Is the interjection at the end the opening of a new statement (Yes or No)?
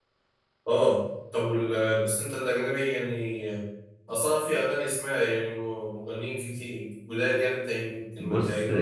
Yes